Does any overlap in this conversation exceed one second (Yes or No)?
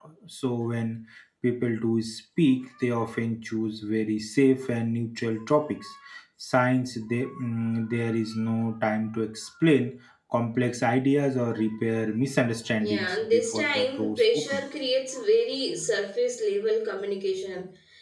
Yes